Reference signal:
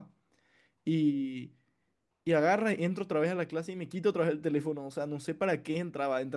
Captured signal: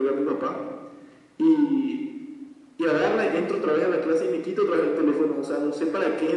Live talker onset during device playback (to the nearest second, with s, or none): none